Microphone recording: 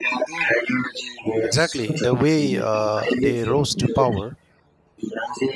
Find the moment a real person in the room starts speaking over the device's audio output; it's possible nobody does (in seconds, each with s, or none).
1.4 s